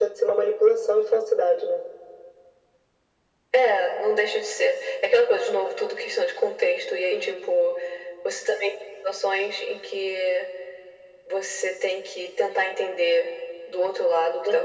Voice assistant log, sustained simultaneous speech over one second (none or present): none